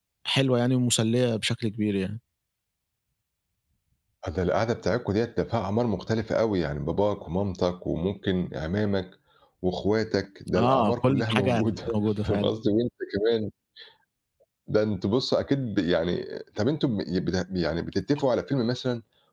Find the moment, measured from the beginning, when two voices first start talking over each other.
10.5 s

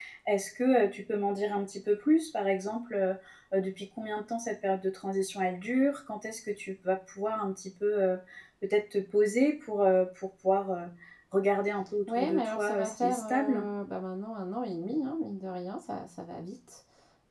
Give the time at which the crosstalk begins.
12.1 s

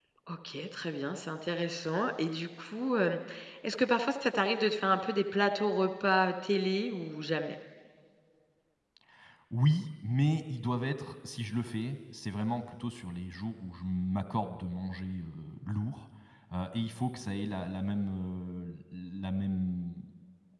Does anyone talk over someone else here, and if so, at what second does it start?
none

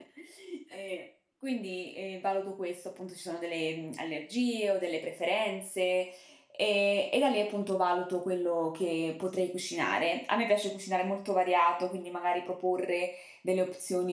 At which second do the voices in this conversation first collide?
none

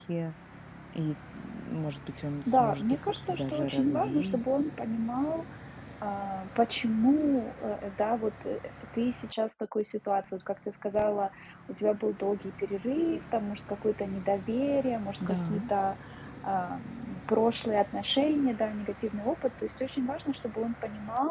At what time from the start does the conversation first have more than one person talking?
2.5 s

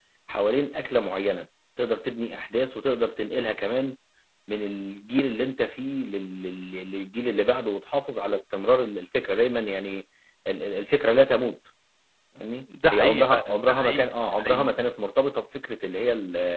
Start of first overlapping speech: 12.9 s

